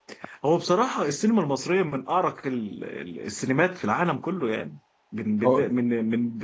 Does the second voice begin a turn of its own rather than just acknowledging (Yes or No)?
No